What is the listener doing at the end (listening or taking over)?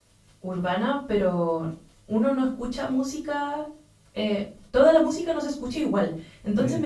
listening